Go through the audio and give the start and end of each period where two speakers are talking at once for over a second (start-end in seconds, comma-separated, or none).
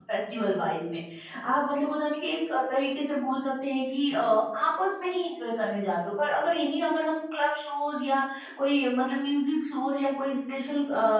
none